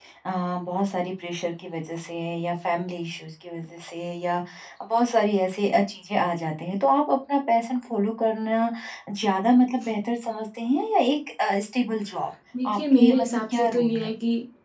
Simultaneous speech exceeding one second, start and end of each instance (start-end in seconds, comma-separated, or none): 12.7-14.1